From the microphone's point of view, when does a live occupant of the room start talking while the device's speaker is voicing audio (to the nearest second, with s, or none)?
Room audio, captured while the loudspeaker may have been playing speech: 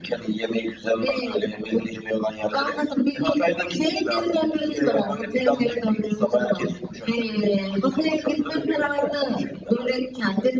none